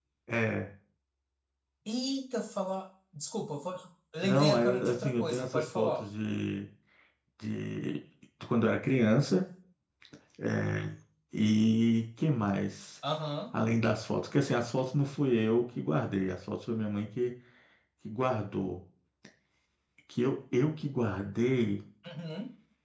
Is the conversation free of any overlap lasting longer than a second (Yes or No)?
No